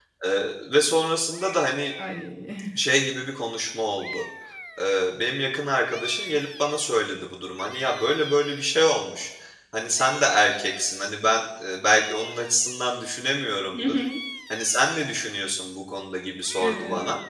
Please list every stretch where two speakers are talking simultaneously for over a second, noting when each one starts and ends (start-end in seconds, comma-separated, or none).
none